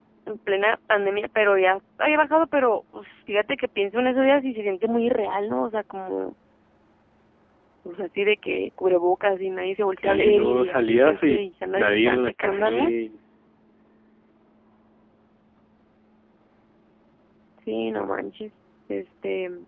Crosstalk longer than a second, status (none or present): present